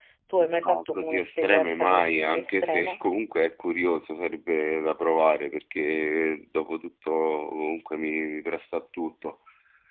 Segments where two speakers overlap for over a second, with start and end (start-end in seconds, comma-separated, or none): 0.6-3.0